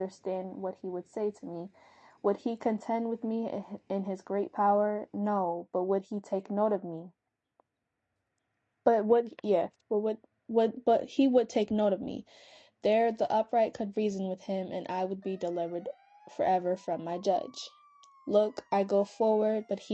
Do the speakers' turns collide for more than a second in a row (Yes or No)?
No